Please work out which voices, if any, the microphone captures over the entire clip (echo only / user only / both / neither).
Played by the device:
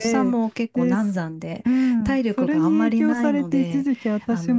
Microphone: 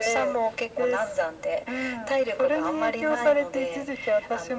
echo only